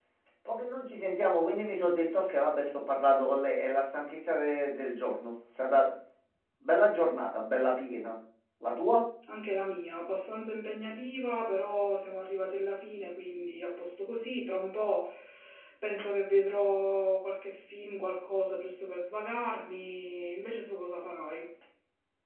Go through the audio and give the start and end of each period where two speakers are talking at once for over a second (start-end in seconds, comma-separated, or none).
none